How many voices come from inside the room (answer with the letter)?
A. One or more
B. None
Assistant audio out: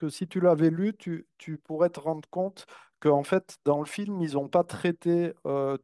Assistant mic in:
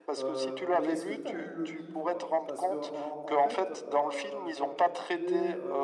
A